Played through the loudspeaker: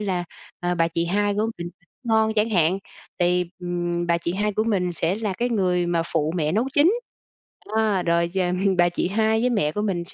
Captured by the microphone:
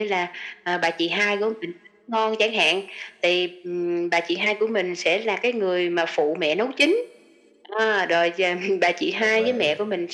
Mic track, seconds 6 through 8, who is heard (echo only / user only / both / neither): echo only